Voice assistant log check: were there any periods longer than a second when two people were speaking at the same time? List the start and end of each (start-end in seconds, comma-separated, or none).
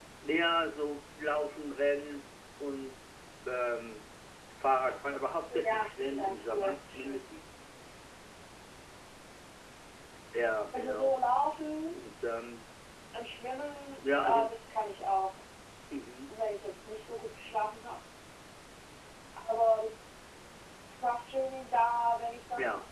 5.5-7.2